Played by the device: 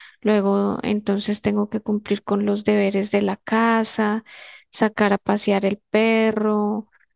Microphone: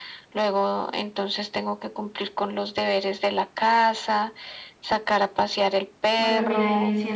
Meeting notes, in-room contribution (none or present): present